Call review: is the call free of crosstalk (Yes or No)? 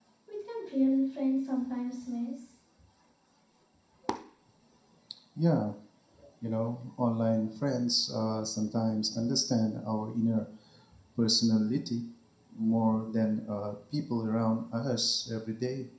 Yes